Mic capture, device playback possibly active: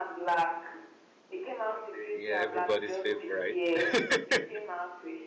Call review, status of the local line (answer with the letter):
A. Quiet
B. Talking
B